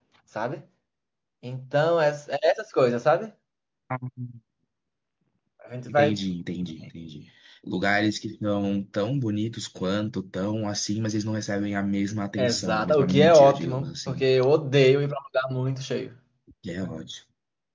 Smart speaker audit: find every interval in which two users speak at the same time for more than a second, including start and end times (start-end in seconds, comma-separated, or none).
12.4-14.2